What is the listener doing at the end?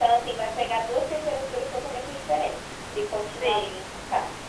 listening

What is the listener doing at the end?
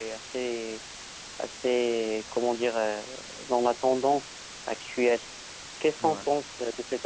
listening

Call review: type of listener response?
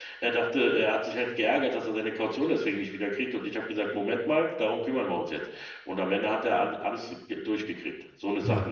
listening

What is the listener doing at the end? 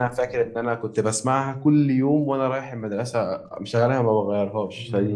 taking over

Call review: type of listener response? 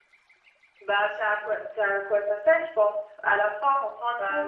listening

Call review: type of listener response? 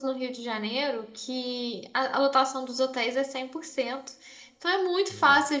listening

